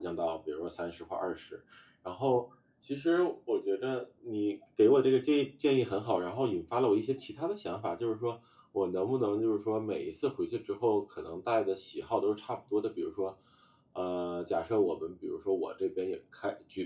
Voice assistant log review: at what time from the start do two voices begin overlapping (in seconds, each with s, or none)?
none